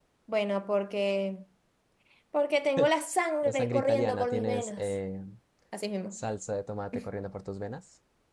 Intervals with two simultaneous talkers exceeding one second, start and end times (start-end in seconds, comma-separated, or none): 3.4-5.0